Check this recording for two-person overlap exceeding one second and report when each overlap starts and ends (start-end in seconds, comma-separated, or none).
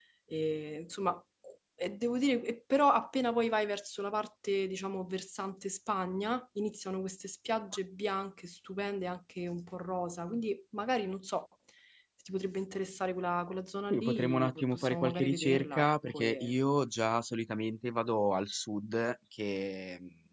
13.9-16.5